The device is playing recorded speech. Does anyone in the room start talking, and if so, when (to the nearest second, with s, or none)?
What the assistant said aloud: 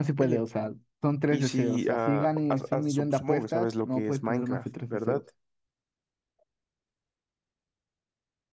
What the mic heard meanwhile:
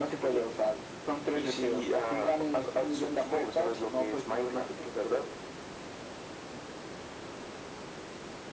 none